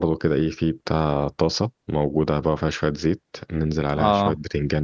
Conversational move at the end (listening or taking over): listening